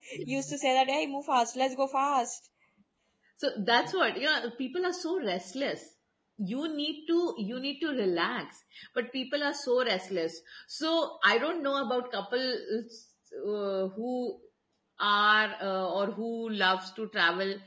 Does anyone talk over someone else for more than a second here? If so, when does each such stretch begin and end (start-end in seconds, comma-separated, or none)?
none